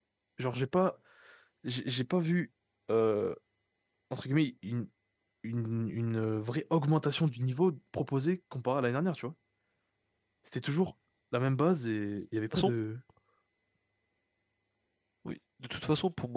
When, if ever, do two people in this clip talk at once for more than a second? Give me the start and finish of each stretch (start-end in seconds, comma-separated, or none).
none